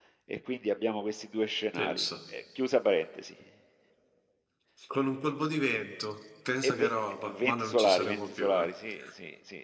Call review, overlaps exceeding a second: present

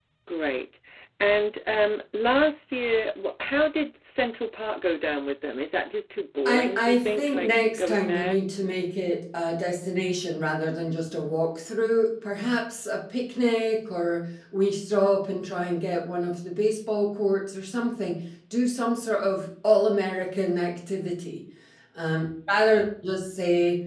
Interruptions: present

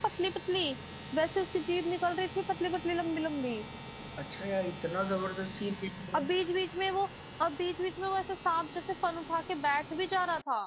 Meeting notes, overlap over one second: none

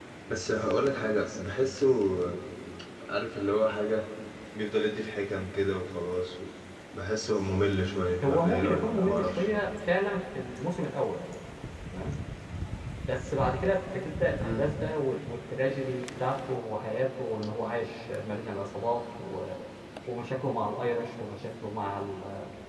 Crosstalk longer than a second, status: present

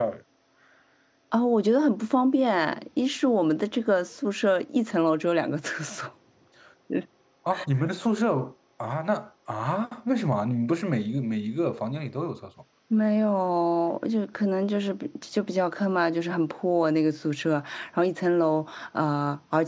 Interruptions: none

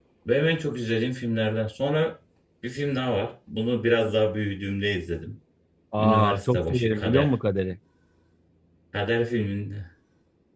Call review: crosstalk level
present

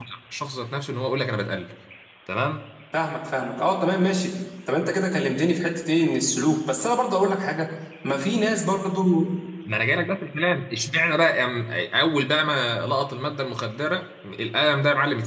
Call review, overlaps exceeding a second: none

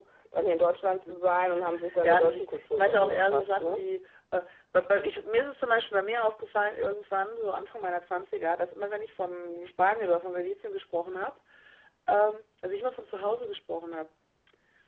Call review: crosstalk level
present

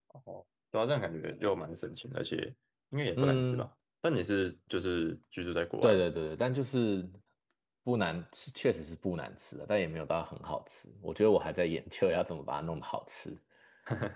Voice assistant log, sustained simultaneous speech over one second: none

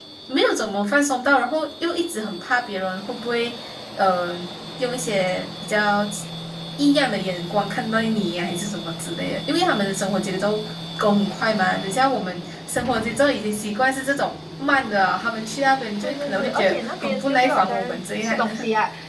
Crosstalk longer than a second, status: present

